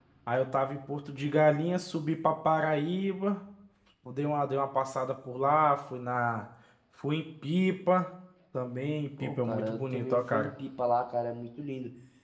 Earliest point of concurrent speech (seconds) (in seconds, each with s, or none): 9.2 s